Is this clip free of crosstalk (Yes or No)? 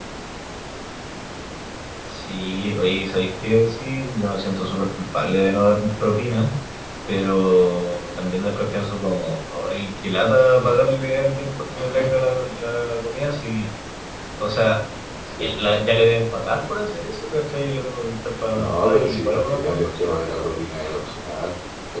No